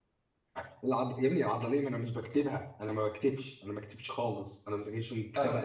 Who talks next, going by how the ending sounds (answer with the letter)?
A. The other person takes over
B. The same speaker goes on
A